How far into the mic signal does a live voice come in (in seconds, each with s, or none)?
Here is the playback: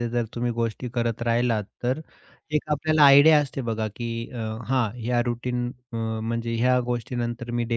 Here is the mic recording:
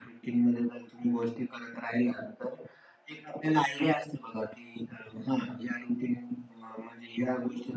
none